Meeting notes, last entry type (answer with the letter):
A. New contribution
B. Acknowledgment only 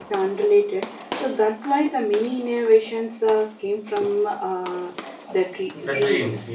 A